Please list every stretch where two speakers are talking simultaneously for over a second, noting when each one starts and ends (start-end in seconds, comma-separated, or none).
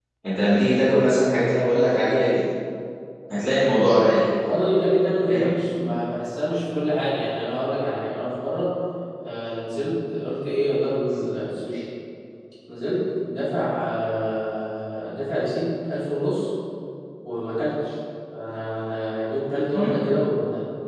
none